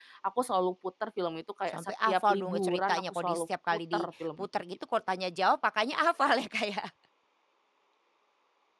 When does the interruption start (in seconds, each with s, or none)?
1.7 s